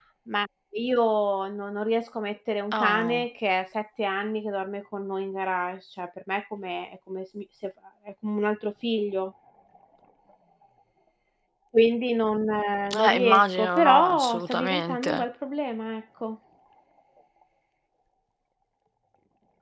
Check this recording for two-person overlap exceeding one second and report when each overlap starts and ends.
12.9-15.2

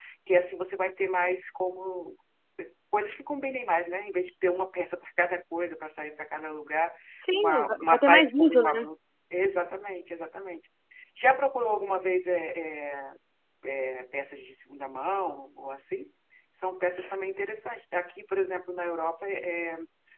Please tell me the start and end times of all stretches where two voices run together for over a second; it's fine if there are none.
7.3-8.9

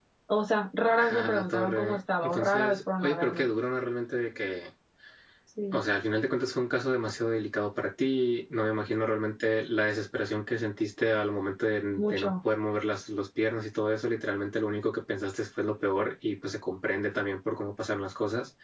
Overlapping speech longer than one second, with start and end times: 0.9-3.5

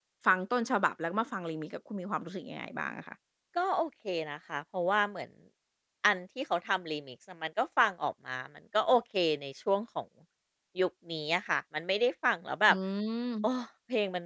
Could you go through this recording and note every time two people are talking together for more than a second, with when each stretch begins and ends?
none

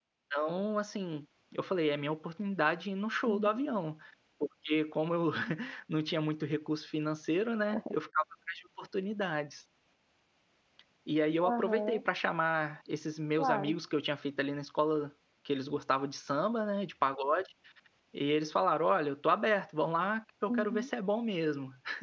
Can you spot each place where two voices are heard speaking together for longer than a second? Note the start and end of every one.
none

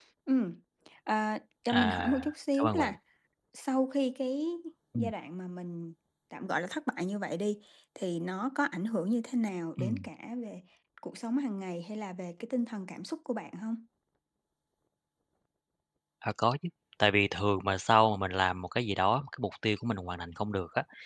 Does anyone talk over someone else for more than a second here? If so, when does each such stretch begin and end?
1.7-3.0

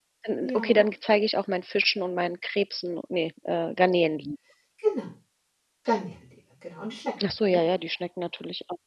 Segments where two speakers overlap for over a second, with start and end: none

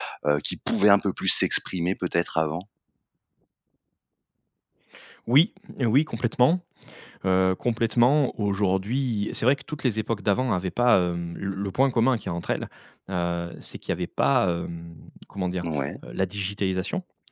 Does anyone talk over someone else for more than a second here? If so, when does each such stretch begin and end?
none

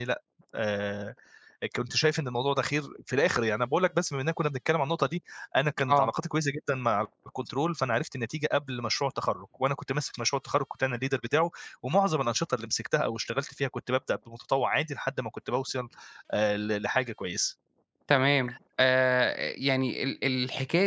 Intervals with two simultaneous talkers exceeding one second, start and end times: none

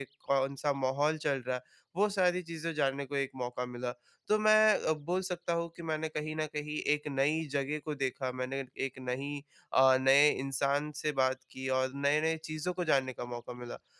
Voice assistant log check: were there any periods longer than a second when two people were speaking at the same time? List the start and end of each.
none

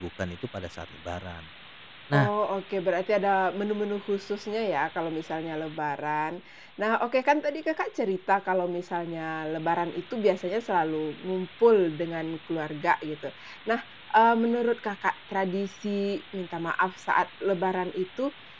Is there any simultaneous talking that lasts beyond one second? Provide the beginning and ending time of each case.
none

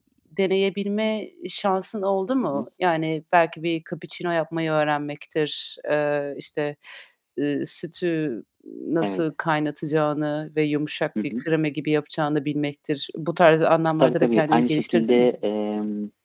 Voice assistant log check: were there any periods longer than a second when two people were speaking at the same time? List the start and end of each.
14.0-15.3

